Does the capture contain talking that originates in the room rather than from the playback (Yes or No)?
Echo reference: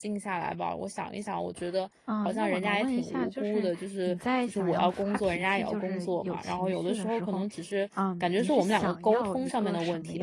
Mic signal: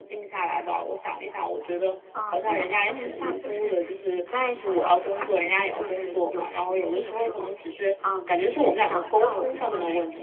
No